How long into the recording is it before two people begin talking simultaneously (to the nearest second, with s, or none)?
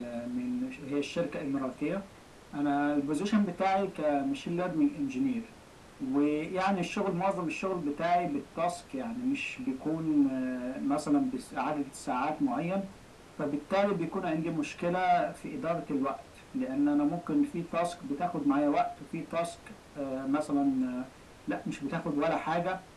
none